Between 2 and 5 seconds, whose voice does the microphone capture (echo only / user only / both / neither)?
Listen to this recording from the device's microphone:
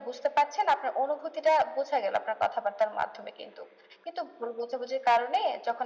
echo only